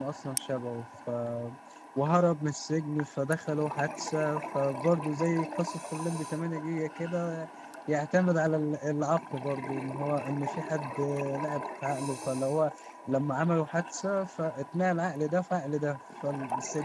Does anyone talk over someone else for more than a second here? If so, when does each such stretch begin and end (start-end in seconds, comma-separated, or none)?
none